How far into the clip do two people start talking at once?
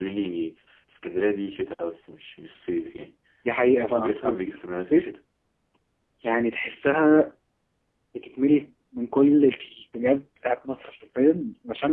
3.9 s

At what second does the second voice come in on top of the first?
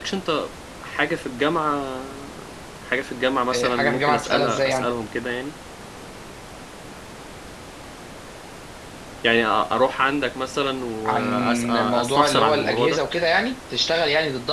3.5 s

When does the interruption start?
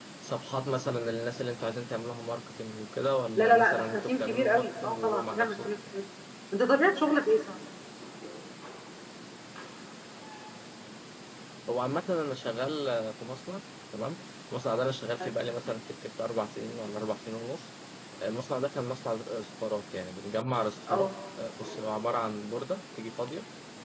3.4 s

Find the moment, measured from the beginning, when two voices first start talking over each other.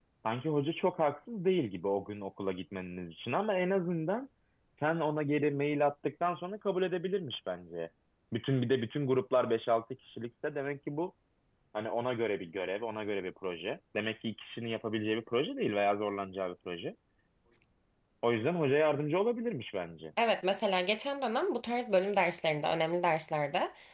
none

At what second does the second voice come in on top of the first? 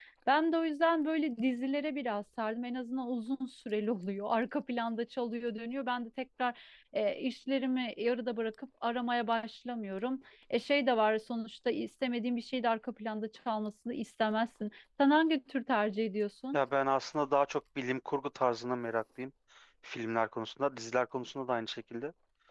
none

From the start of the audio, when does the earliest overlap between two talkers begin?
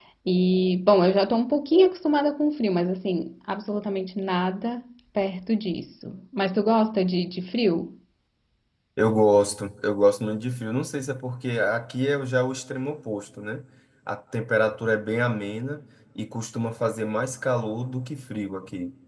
none

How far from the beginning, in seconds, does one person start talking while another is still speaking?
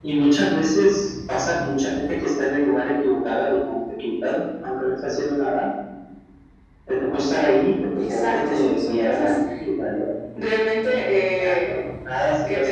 8.0 s

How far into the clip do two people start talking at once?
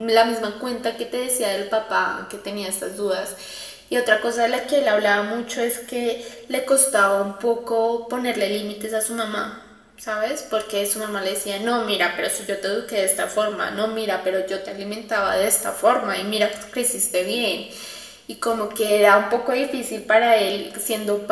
none

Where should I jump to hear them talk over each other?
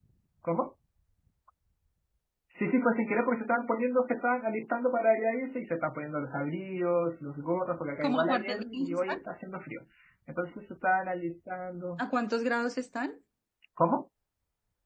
8.0 s

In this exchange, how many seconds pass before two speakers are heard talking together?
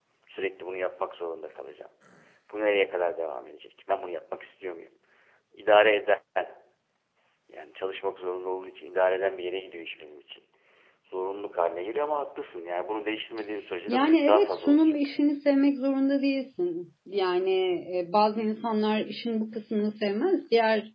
13.9 s

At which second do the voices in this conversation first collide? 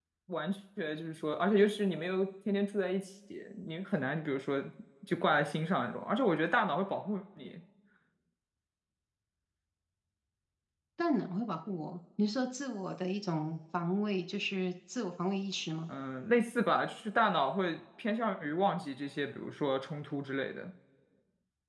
none

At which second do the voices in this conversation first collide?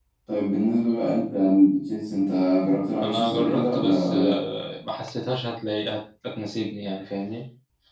3.0 s

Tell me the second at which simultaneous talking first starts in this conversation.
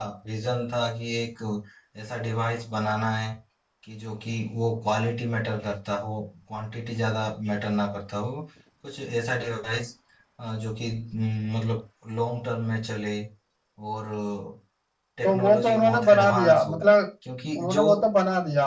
15.2 s

